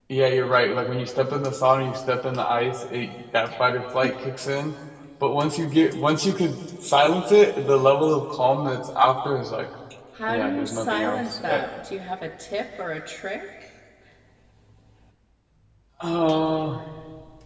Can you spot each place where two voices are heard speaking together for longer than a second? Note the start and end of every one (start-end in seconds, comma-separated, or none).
10.3-11.6